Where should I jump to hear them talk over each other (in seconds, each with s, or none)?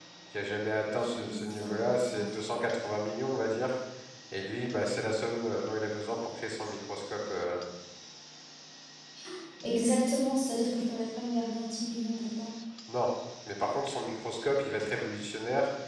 1.0 s